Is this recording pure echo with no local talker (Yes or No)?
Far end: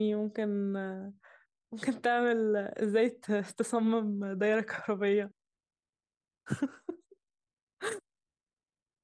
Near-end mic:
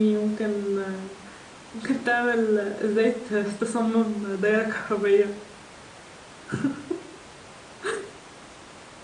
Yes